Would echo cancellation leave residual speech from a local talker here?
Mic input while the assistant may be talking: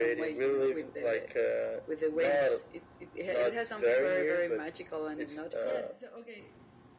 Yes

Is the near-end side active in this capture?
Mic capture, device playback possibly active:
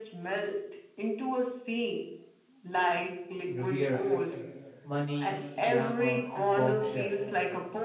Yes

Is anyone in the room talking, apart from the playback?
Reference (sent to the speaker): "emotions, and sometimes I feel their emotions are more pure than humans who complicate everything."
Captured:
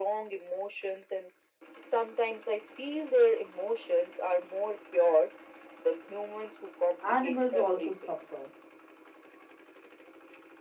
Yes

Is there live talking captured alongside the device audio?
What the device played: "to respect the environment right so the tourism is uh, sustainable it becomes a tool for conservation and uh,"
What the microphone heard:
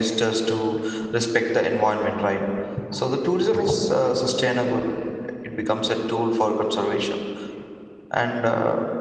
No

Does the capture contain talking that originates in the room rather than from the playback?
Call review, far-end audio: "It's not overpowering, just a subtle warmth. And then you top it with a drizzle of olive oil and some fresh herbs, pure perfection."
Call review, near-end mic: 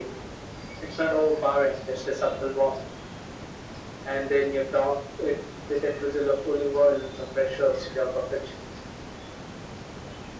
No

